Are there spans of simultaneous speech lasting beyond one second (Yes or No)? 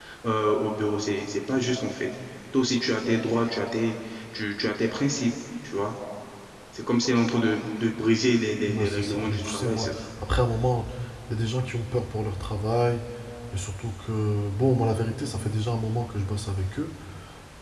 Yes